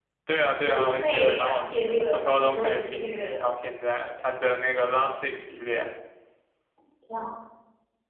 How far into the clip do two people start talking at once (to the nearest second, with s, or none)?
1 s